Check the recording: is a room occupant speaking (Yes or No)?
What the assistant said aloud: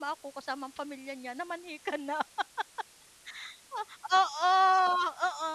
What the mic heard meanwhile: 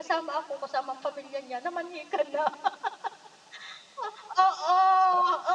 No